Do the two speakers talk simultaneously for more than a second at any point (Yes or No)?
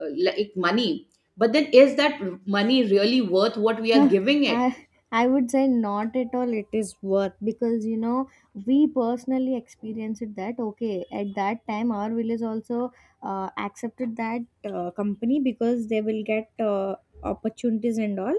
No